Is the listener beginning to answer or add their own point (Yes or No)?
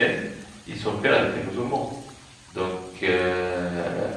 No